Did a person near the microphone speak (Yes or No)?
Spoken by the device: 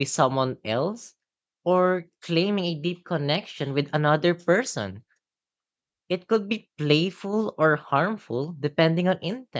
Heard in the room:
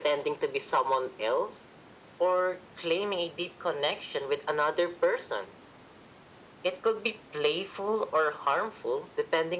No